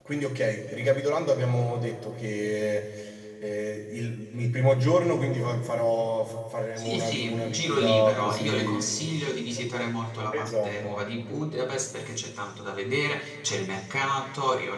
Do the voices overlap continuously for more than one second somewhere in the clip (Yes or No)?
Yes